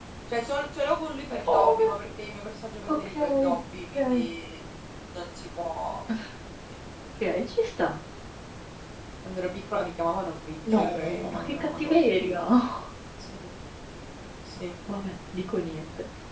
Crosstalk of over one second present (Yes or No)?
Yes